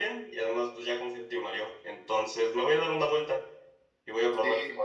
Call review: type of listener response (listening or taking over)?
listening